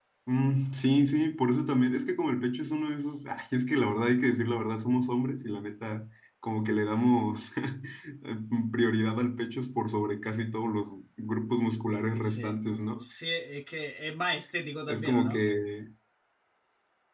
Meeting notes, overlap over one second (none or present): none